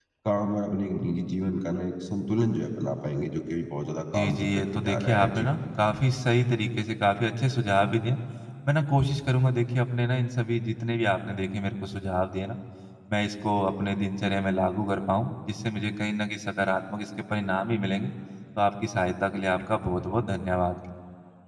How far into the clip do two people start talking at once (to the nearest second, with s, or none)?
4 s